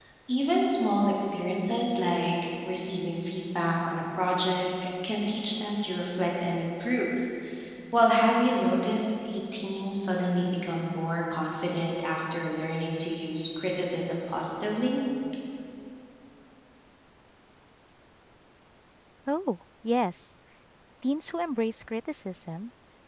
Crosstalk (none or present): none